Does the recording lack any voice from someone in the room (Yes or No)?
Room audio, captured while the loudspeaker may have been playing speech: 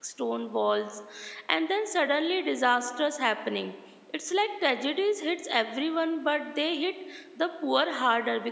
No